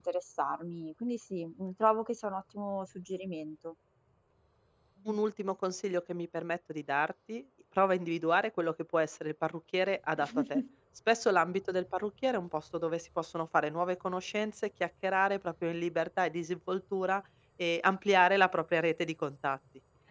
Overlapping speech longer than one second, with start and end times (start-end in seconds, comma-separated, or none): none